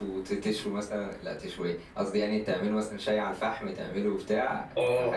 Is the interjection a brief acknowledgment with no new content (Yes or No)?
No